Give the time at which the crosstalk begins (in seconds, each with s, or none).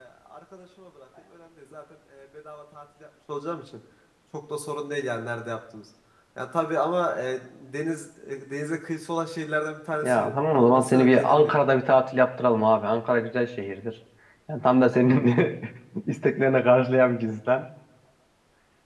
10.0 s